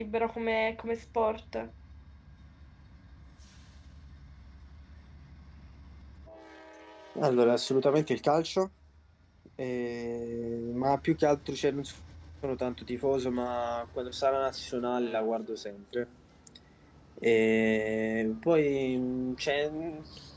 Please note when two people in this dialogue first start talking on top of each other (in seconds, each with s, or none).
none